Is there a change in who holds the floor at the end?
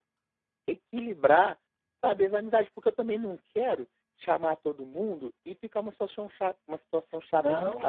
Yes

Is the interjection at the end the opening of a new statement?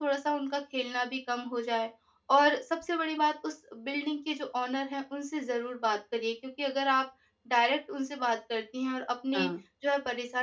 No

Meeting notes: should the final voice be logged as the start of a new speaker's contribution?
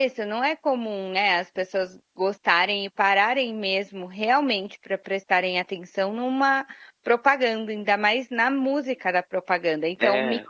No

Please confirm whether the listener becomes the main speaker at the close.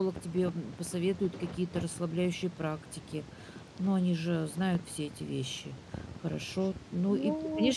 No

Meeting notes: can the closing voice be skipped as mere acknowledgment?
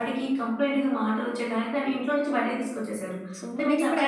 No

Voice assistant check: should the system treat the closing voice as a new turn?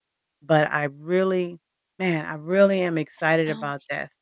No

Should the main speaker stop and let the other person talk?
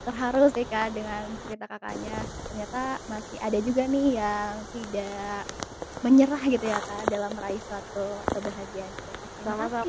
Yes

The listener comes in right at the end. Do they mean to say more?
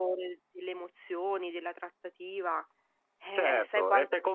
Yes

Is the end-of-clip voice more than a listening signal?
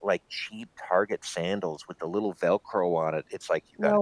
No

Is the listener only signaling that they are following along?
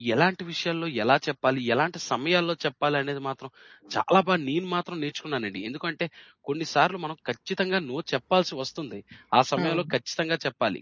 Yes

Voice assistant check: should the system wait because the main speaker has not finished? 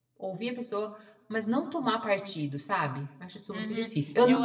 No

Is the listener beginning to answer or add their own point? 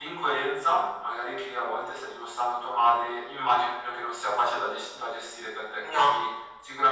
No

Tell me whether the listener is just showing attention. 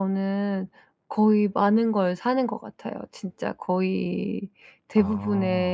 Yes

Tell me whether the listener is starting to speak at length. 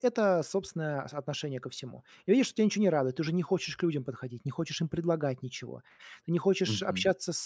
No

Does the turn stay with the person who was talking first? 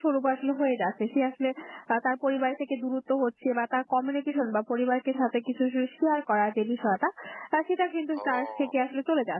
Yes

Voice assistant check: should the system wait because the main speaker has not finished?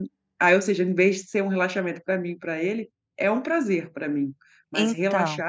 Yes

